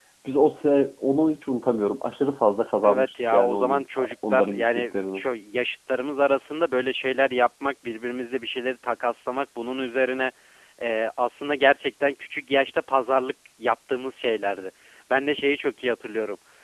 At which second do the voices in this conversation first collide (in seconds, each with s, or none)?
2.8 s